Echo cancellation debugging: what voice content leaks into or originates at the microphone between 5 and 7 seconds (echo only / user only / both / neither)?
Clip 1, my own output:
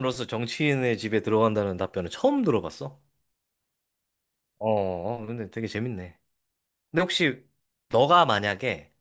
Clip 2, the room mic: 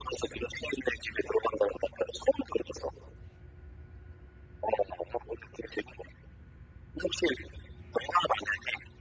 echo only